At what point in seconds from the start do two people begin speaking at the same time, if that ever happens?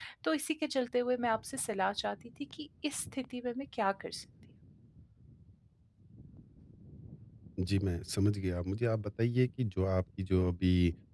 none

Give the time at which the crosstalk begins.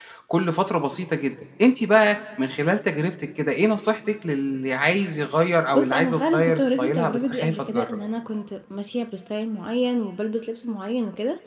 5.7 s

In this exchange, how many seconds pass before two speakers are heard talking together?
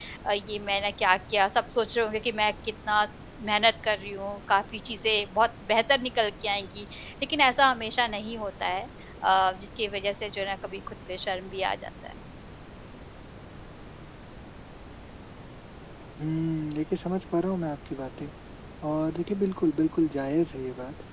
none

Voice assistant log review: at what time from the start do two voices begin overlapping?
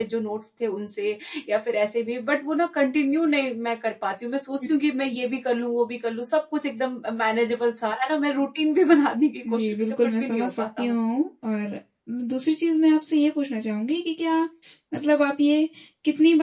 9.4 s

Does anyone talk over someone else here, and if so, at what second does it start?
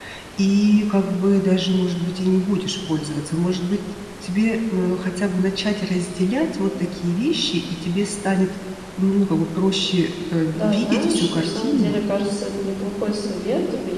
10.5 s

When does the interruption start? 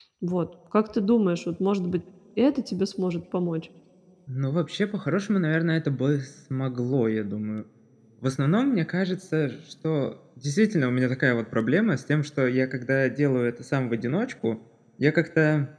none

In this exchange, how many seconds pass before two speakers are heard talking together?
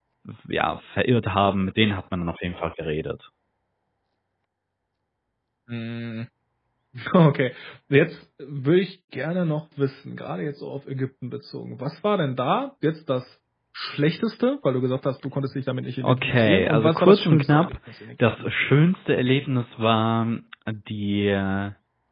16.0 s

